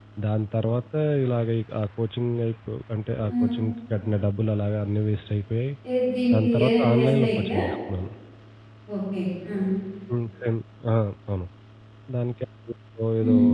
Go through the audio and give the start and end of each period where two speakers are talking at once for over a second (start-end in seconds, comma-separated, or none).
6.3-7.6